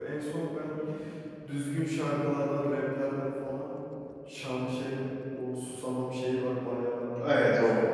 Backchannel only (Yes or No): No